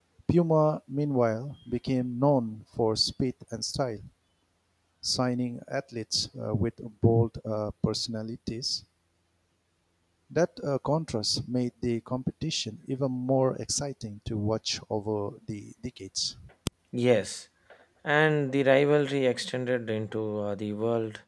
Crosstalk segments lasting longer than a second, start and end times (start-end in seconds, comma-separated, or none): none